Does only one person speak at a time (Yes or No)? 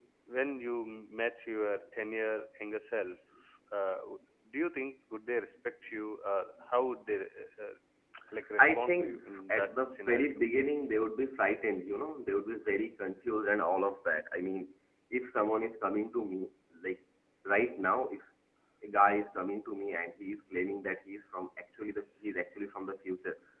No